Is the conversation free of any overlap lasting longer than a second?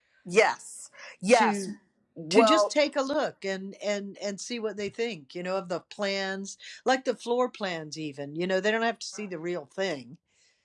Yes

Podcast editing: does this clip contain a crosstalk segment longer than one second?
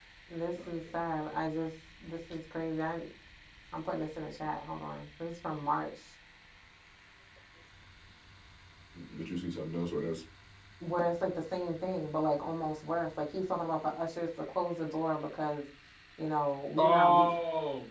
No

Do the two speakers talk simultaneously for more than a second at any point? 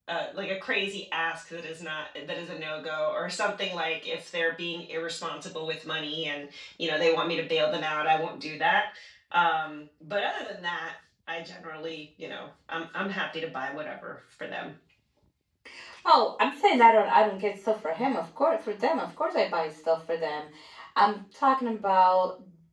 No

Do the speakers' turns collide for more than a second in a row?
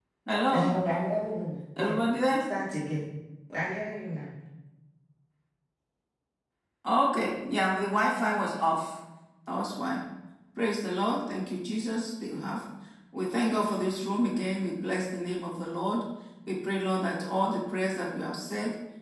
No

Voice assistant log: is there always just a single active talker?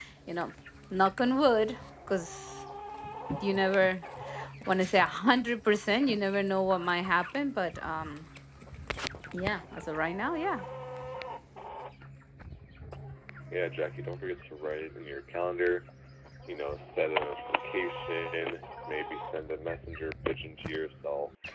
Yes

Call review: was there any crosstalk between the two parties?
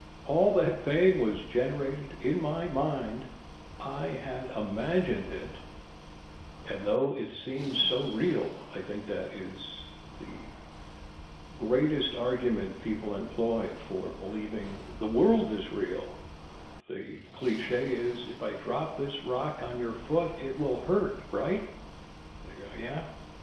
No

